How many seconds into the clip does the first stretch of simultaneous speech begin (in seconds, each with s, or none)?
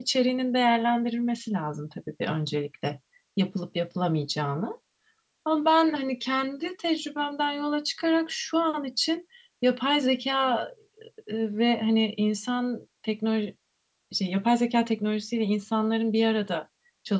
none